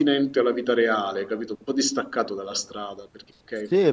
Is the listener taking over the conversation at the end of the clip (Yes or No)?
Yes